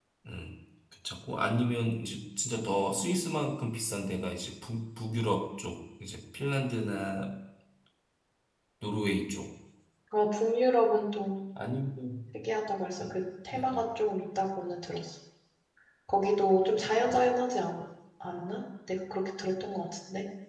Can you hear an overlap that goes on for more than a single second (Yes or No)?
No